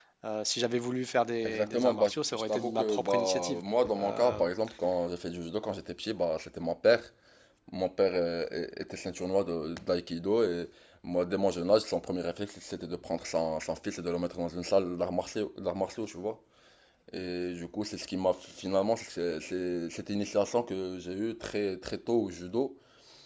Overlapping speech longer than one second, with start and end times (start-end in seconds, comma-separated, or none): 1.4-3.6